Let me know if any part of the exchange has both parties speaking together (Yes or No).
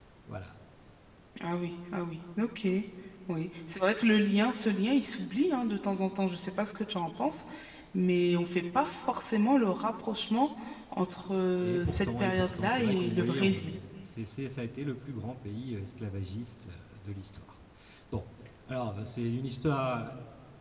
Yes